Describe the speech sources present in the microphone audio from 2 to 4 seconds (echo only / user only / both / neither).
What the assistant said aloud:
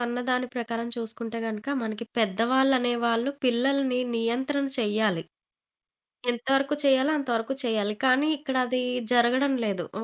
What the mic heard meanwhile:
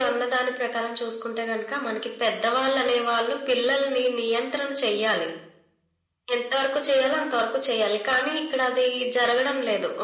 echo only